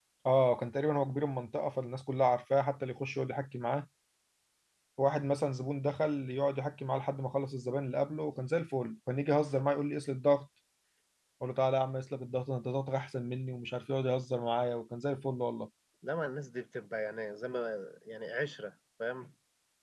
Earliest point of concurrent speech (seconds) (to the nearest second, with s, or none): none